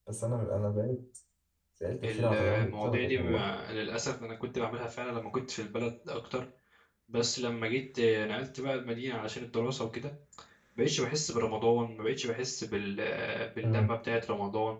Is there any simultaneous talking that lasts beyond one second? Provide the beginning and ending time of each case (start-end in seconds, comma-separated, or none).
2.0-3.5